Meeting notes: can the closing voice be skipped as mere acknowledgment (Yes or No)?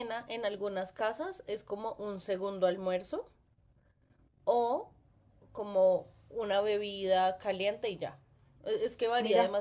Yes